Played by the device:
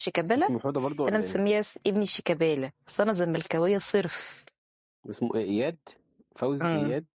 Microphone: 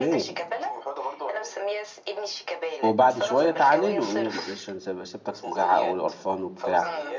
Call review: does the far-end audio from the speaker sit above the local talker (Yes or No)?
No